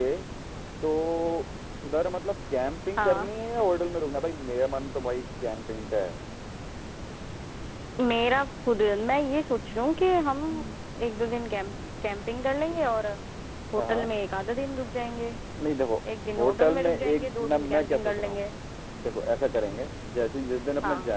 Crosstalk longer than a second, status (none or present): present